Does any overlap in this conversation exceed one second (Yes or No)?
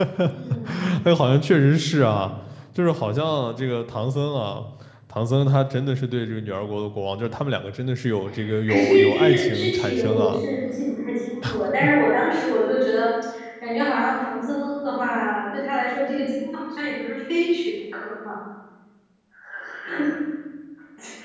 Yes